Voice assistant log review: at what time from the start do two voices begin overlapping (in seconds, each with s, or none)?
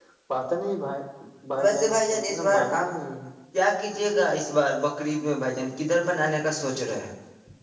1.6 s